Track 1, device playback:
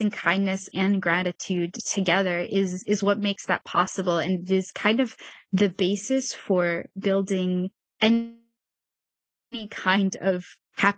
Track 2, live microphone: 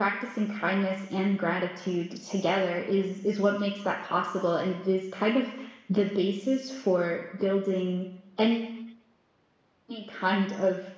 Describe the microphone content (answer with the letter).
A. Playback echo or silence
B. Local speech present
A